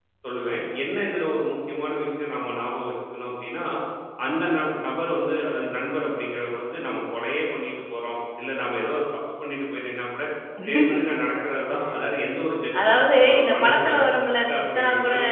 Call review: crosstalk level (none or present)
present